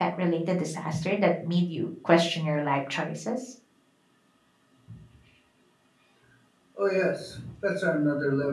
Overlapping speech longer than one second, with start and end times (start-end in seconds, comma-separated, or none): none